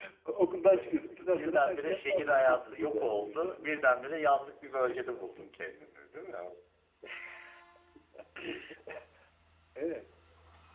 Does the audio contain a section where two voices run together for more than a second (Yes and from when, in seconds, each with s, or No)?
Yes, from 0.7 s